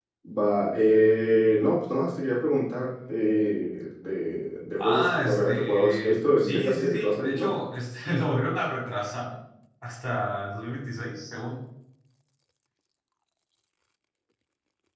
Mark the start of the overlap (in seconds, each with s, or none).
4.8 s